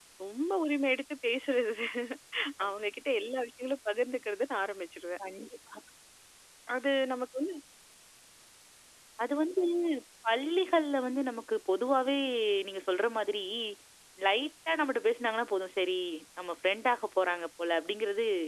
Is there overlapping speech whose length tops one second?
No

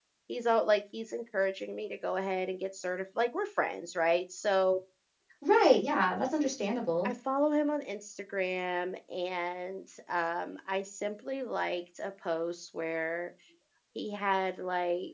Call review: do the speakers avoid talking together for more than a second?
Yes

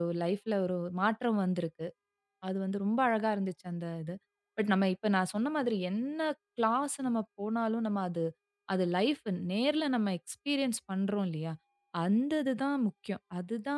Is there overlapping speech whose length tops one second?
No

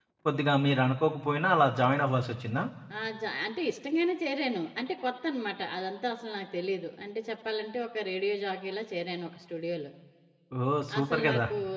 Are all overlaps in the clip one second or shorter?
Yes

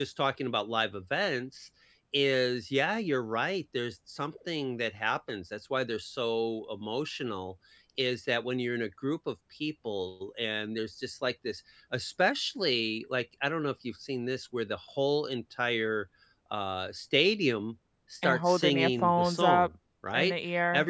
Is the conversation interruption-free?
No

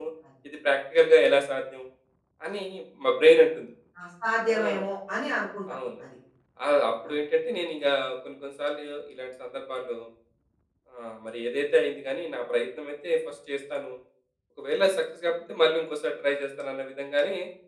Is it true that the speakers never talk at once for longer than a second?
Yes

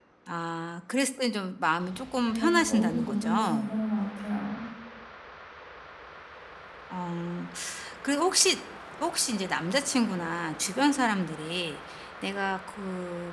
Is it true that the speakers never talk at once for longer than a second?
No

